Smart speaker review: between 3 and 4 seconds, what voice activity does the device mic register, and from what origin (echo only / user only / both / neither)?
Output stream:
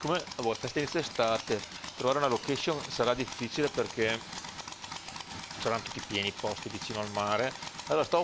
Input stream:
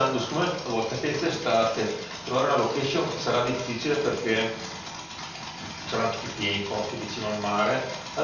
echo only